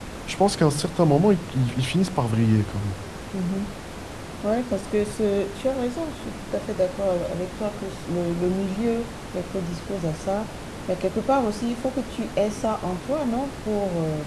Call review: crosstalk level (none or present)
none